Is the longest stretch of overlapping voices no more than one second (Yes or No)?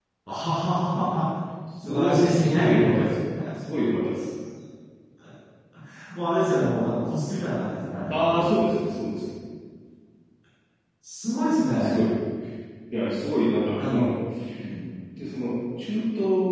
No